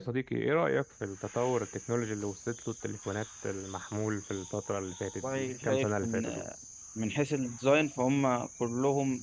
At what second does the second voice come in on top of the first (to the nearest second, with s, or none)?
5 s